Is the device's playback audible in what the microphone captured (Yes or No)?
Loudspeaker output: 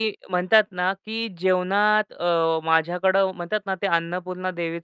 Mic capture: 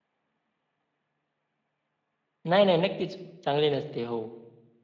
No